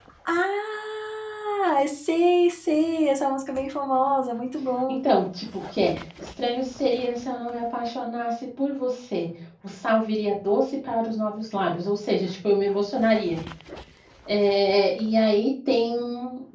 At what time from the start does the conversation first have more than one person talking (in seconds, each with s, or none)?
none